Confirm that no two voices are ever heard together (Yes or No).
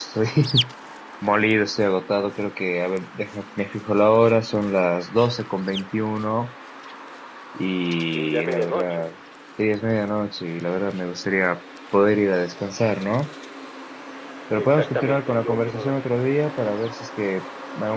No